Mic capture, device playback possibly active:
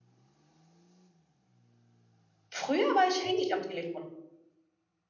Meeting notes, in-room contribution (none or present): present